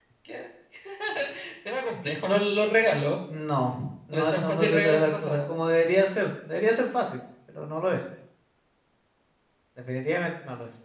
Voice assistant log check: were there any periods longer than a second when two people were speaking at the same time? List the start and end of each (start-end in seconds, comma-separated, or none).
4.1-5.5